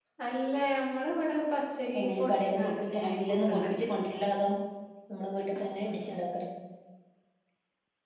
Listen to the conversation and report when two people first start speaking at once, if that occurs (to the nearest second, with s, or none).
2 s